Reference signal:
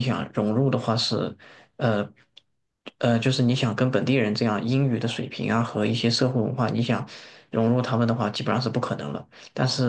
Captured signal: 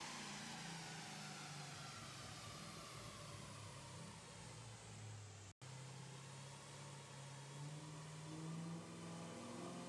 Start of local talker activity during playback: none

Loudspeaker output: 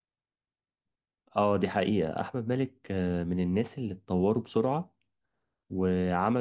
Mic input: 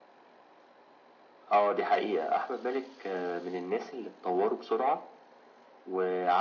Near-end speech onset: none

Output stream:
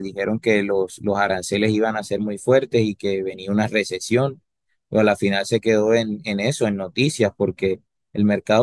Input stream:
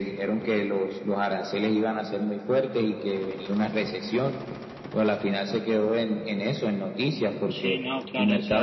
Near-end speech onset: 7.5 s

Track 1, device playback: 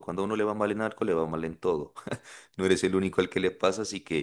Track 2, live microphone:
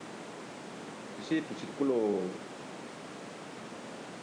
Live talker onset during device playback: 1.1 s

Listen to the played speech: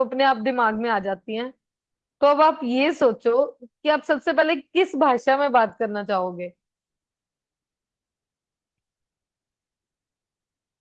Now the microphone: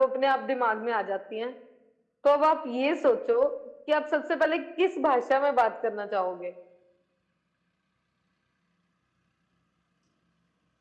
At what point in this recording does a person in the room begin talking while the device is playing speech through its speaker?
none

